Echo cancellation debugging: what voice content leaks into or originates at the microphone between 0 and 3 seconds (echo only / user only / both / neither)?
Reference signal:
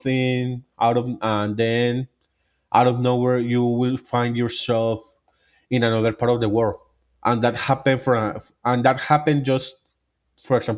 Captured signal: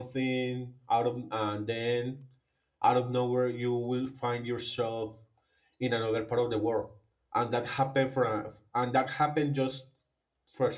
echo only